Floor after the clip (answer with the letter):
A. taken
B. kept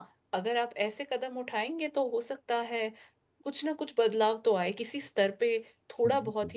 B